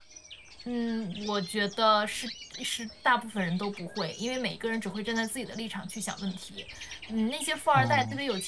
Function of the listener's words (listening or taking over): listening